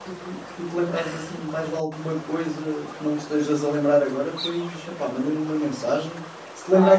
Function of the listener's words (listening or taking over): listening